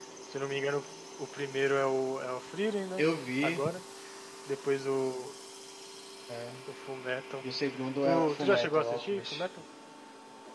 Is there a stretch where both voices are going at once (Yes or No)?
Yes